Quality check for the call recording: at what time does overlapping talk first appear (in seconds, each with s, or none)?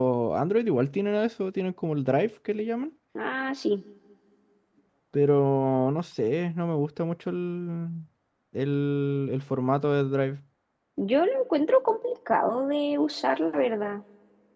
none